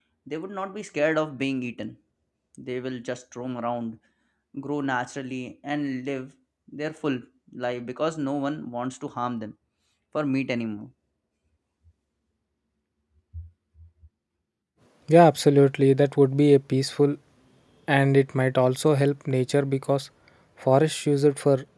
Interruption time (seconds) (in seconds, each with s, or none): none